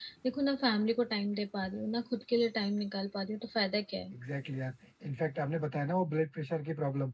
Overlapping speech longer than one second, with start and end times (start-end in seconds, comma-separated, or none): none